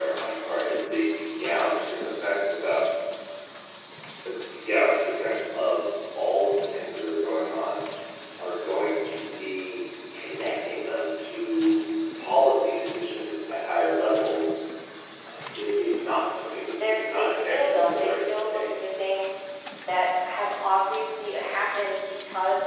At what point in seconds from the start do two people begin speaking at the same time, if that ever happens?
16.8 s

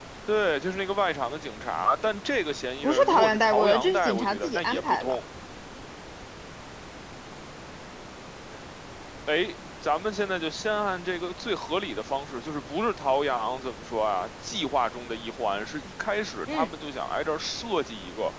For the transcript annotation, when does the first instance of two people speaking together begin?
2.8 s

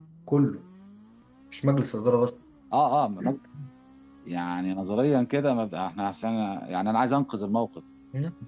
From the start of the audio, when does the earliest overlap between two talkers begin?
none

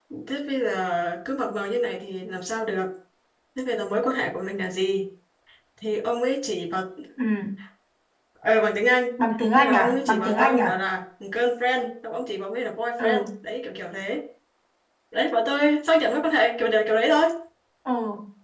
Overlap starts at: 9.6 s

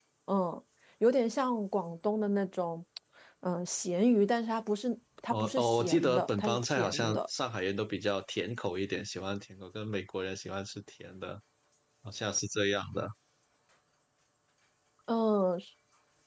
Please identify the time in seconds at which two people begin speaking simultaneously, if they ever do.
5.3 s

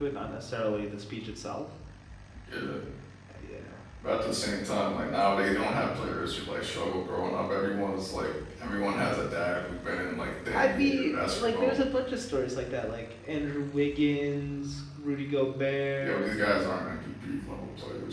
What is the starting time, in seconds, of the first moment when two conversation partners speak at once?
10.5 s

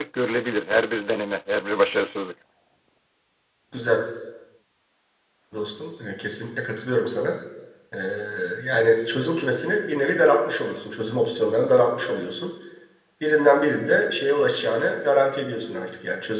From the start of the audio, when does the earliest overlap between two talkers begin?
none

